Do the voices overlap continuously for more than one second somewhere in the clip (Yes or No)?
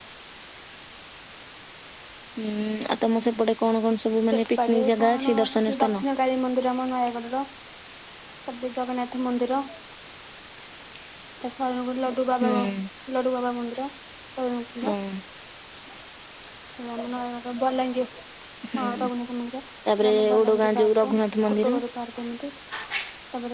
Yes